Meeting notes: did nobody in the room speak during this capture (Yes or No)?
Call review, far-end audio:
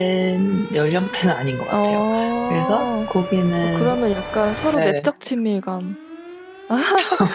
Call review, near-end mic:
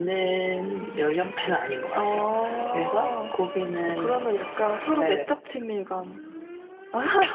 Yes